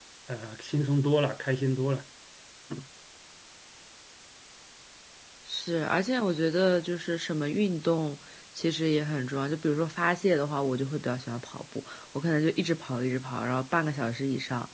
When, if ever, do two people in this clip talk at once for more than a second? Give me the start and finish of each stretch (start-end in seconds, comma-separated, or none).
none